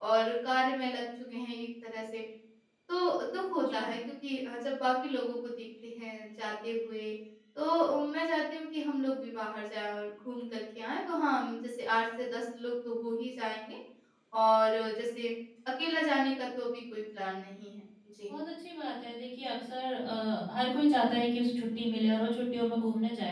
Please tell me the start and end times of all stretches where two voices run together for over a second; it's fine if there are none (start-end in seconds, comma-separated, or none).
none